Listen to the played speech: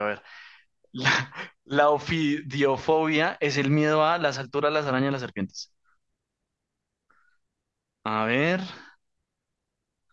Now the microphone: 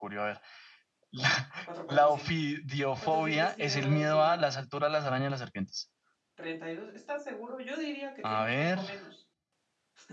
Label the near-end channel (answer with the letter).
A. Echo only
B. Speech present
B